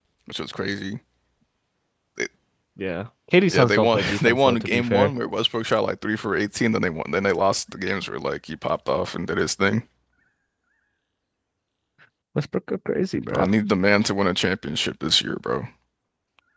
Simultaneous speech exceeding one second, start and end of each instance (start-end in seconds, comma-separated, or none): 3.5-5.1